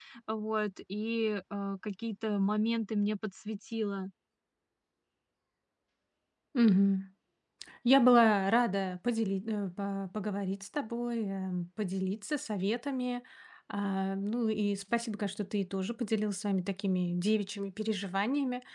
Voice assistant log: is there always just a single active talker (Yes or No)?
Yes